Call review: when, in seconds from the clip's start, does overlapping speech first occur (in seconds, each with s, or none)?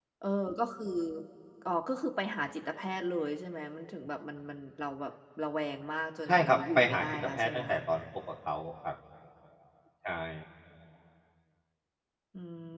6.3 s